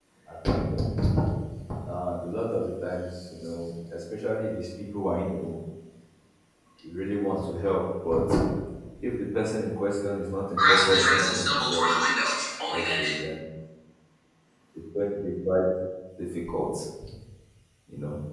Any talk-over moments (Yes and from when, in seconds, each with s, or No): Yes, from 10.6 s